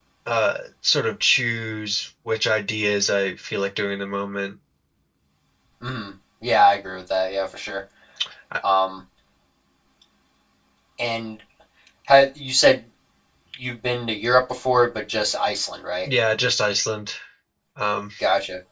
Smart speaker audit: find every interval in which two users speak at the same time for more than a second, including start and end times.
none

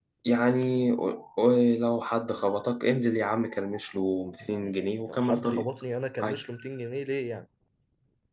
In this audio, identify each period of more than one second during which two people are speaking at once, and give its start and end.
4.4-5.7

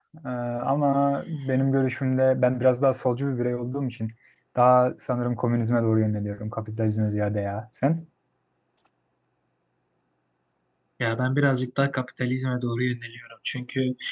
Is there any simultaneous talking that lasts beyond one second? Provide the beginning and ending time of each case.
none

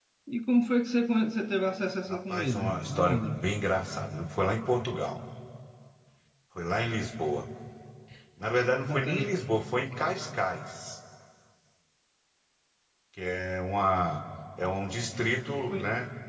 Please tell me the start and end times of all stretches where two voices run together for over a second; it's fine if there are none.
2.1-3.4

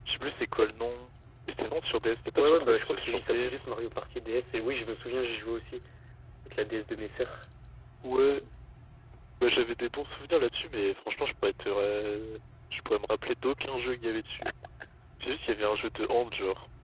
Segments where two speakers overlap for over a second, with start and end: 2.4-3.7

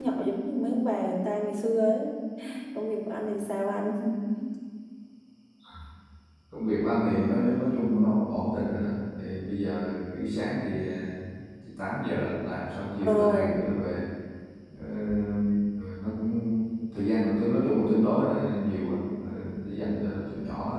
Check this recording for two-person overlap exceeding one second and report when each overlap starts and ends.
none

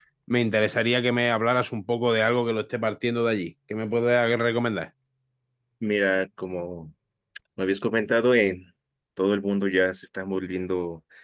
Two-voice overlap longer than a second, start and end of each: none

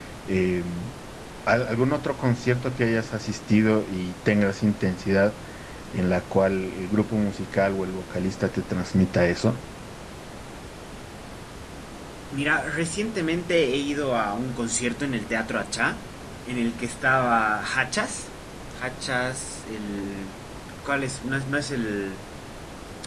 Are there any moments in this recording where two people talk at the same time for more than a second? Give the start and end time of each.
none

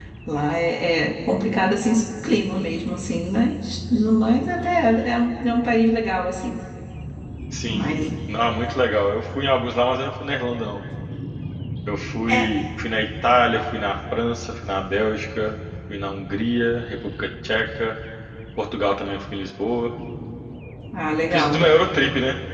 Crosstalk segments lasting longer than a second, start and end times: none

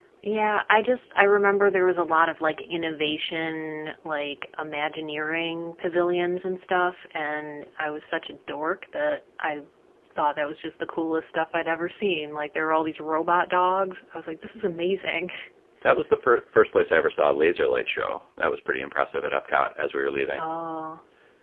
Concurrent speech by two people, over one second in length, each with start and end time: none

